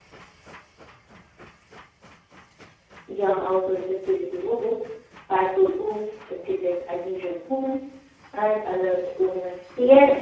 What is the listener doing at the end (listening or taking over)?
taking over